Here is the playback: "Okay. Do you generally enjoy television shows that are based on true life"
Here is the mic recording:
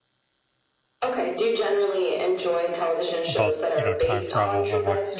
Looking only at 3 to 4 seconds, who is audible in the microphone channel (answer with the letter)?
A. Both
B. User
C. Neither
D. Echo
A